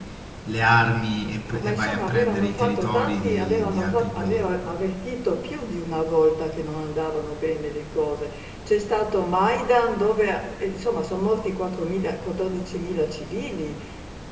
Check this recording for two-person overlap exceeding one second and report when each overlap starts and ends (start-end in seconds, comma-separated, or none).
1.5-4.6